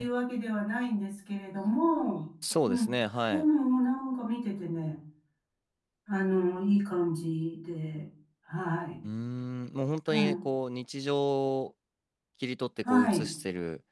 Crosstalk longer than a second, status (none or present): none